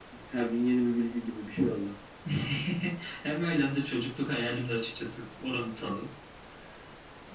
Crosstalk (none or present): none